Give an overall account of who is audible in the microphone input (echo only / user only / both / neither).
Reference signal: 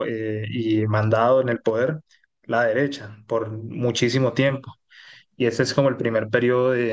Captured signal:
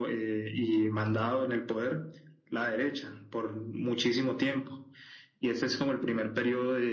echo only